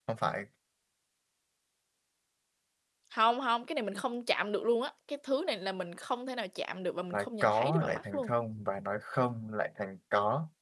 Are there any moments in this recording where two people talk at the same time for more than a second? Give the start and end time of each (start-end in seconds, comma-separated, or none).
7.1-8.3